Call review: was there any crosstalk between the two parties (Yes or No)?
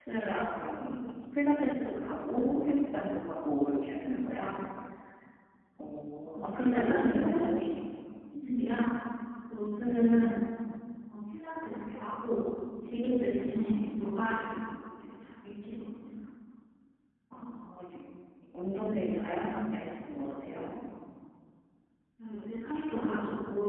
Yes